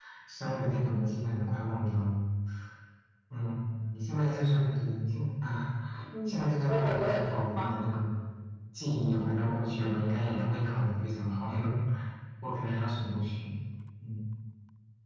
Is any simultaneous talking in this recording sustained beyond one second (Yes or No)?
Yes